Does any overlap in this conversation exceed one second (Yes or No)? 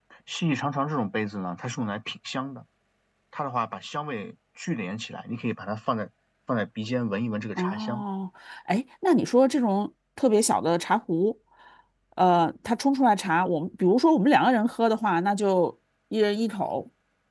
No